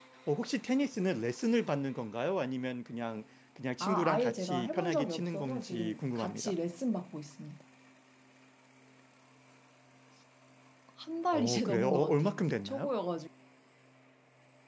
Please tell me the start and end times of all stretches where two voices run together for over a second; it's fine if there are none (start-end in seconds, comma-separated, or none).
3.8-6.6, 11.3-12.9